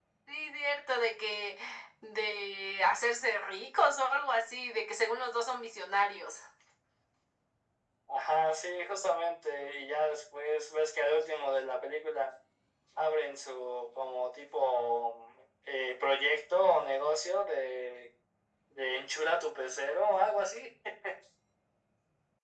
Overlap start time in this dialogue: none

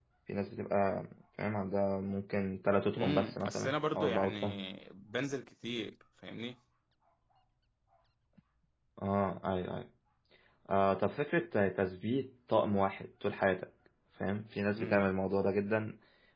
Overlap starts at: 3.0 s

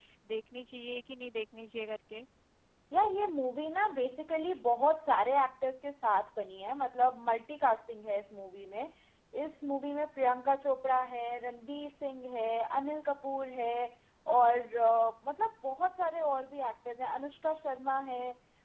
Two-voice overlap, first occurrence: none

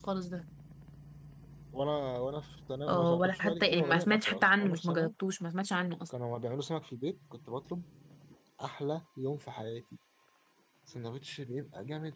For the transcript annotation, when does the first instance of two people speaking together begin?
2.9 s

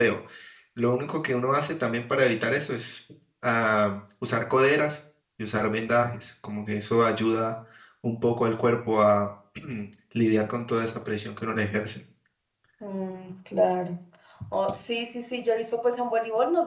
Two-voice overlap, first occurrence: none

